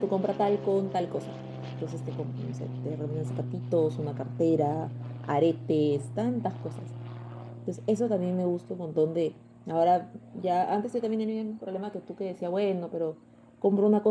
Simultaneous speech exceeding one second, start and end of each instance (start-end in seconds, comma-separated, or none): none